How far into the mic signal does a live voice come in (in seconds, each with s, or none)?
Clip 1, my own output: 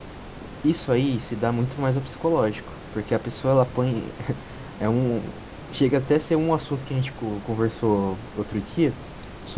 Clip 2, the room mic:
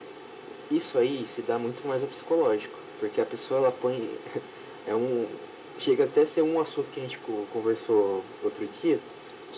none